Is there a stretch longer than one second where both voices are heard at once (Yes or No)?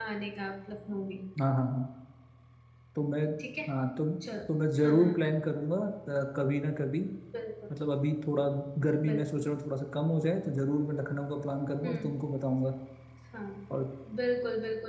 No